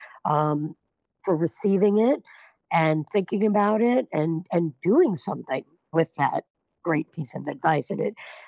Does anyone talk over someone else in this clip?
No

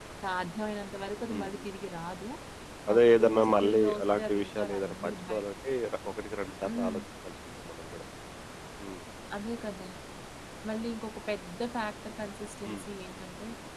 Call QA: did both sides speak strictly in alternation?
No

